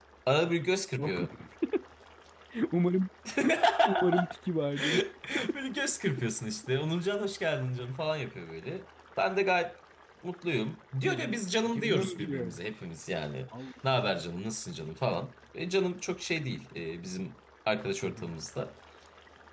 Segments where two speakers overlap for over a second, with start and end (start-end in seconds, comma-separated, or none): 11.0-12.6